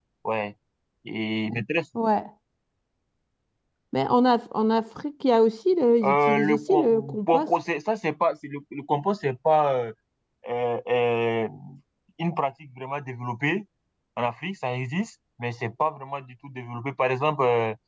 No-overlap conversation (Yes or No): No